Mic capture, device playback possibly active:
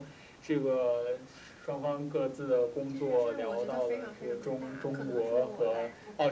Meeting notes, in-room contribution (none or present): present